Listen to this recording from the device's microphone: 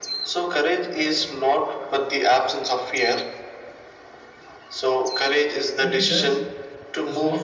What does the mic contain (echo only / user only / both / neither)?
both